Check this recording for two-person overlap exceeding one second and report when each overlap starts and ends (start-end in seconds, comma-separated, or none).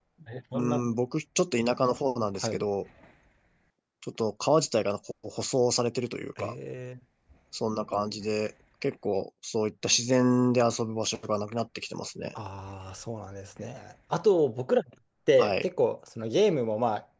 none